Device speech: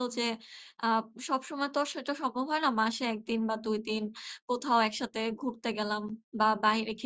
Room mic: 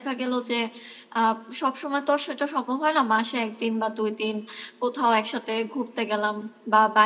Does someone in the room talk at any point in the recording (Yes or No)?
No